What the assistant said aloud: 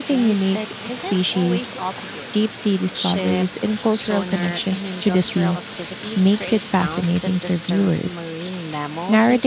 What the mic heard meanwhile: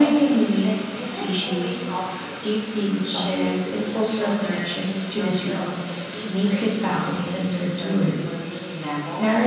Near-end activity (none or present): none